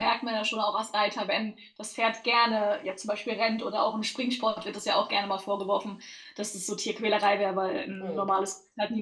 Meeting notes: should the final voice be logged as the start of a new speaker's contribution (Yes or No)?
No